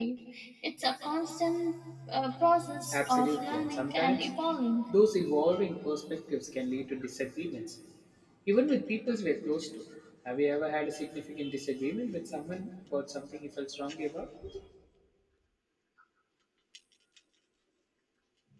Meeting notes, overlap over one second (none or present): present